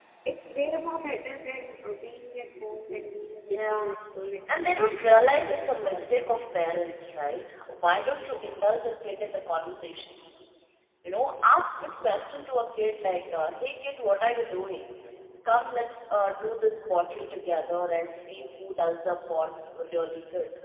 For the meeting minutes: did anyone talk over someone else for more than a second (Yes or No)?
Yes